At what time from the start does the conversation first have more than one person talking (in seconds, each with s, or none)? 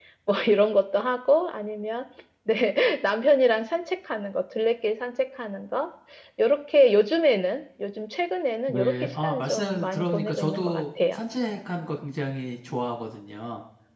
8.7 s